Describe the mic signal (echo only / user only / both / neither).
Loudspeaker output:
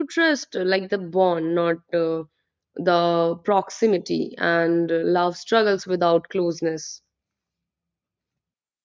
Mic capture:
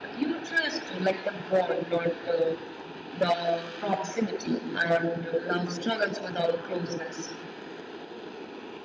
echo only